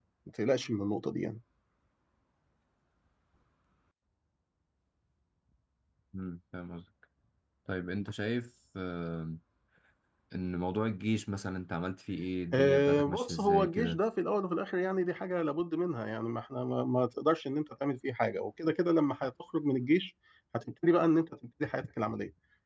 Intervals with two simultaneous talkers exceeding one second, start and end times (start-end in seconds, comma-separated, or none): 12.5-14.0